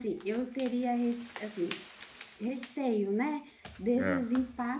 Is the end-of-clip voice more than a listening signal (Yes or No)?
No